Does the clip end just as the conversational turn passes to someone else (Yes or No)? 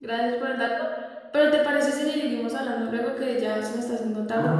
Yes